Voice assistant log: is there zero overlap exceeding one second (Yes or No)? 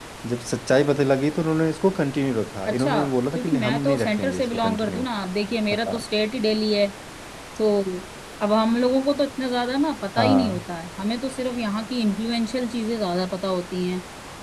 No